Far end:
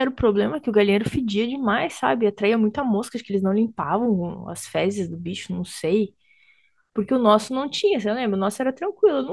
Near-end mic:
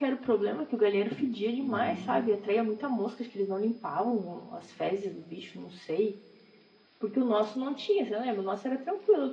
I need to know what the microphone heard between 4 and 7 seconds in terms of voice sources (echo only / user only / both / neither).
echo only